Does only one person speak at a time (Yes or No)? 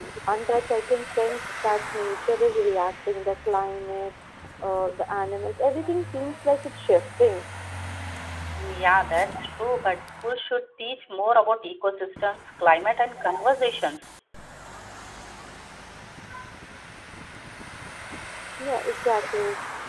Yes